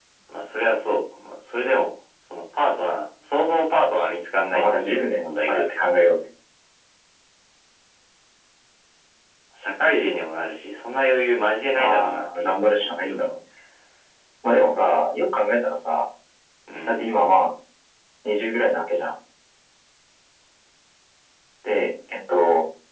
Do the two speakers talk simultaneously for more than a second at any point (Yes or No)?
Yes